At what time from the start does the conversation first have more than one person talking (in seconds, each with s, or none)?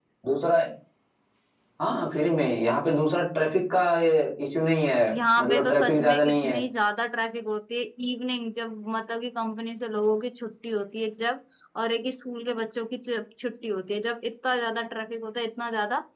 5.4 s